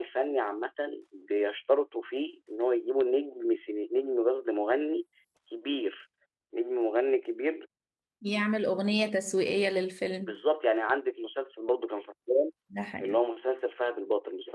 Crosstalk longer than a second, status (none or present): none